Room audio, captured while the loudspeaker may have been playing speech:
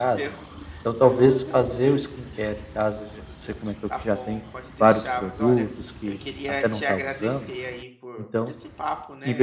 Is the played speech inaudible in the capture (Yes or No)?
No